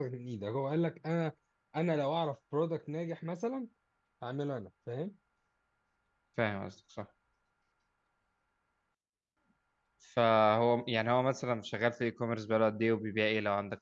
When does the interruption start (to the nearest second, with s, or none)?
none